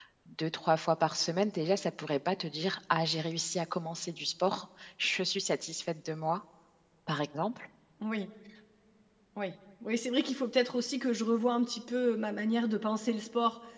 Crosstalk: none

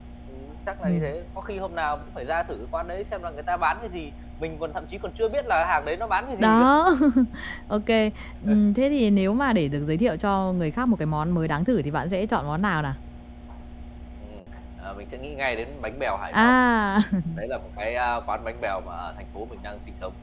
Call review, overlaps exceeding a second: none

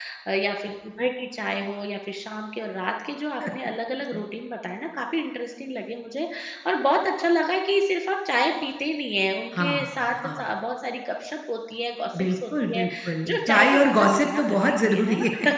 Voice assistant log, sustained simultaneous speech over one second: present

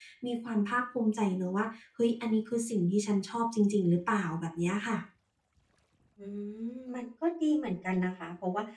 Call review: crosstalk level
none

